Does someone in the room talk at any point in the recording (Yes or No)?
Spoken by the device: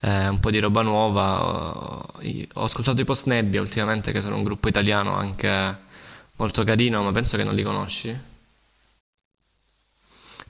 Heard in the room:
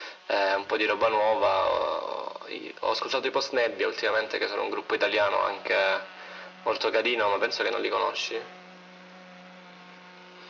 No